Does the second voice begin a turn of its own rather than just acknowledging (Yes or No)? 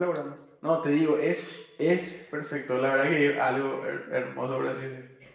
Yes